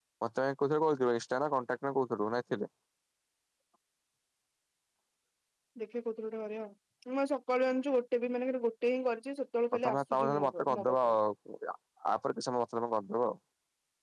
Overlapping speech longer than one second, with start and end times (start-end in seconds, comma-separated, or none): 9.8-11.2